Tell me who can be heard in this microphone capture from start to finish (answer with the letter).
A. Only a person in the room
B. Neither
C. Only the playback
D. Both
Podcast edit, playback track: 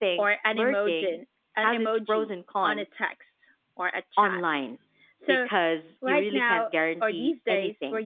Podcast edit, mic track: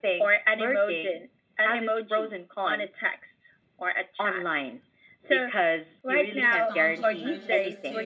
D